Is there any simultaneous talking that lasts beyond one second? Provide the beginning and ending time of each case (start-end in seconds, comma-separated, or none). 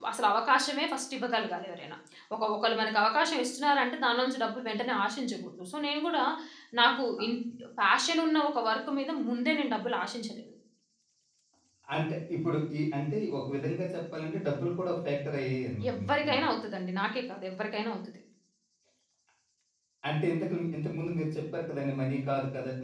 none